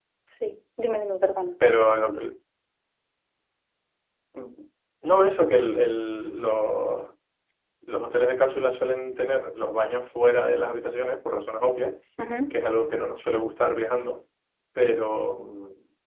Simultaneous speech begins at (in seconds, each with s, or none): none